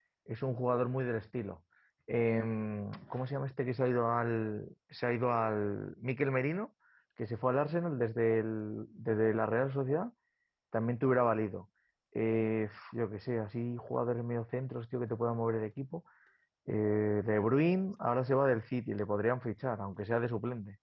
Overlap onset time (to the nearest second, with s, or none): none